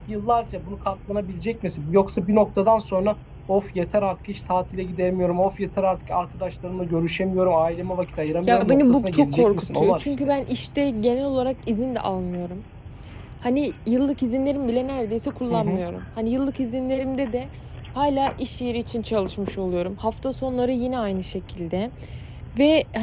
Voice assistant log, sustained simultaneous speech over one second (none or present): present